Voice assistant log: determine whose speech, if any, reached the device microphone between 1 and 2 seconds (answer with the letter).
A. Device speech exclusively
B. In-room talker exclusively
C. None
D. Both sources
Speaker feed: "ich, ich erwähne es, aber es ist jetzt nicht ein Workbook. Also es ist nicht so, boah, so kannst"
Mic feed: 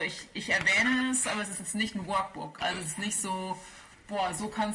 A